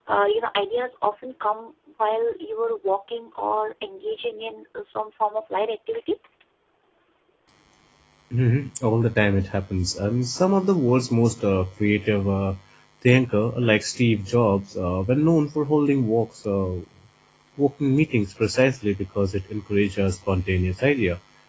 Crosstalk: none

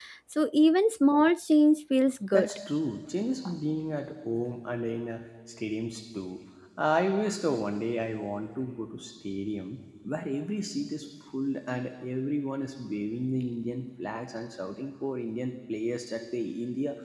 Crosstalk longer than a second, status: none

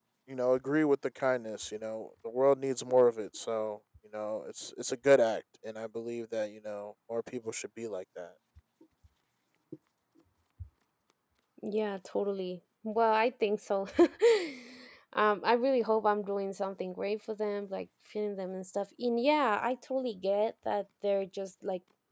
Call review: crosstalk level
none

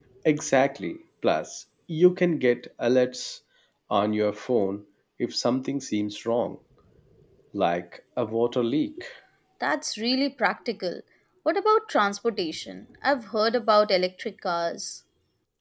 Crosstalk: none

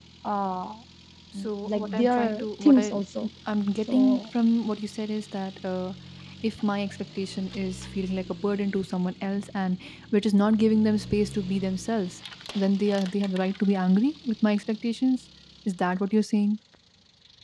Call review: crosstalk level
present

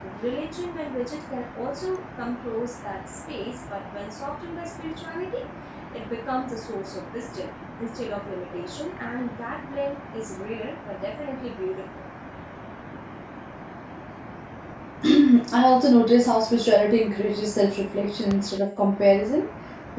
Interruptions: none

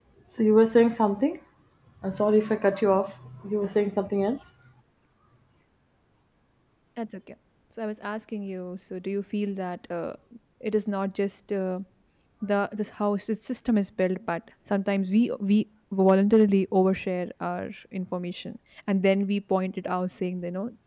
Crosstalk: none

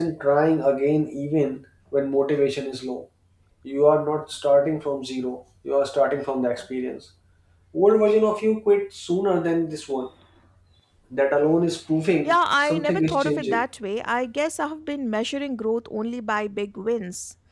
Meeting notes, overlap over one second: present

